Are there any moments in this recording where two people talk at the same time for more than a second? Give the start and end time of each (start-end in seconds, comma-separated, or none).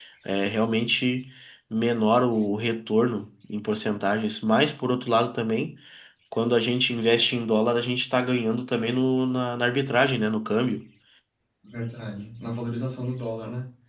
none